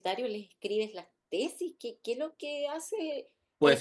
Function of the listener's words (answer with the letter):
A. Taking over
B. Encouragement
A